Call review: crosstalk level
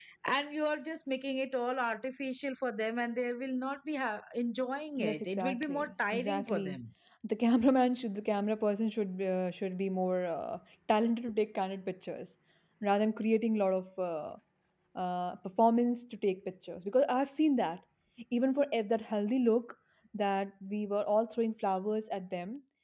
present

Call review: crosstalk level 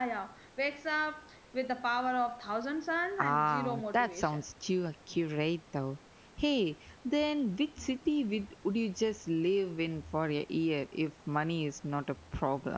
present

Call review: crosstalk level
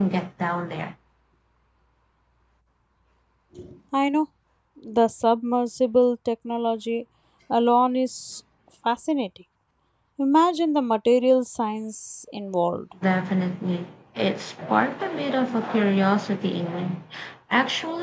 none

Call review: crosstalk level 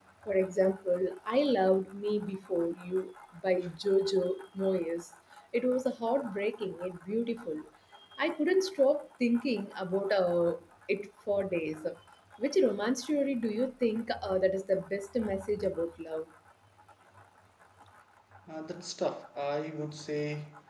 none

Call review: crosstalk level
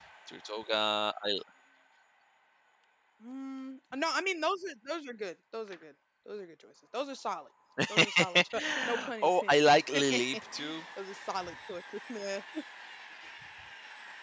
present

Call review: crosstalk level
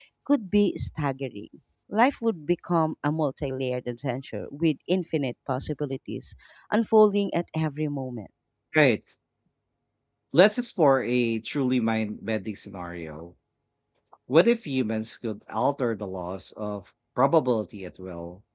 none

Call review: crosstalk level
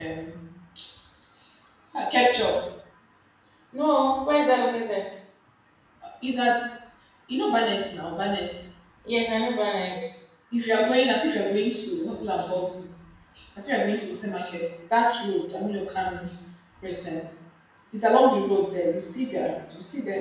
none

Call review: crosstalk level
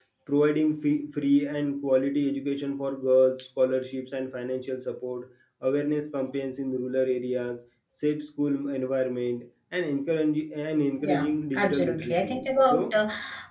present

